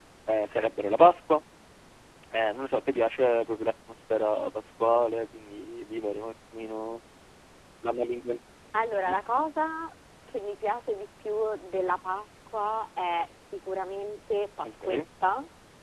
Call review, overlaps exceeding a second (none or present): none